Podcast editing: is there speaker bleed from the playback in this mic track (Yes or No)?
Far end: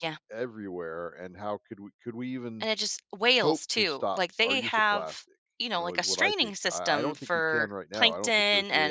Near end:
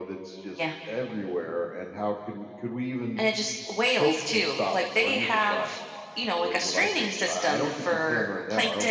Yes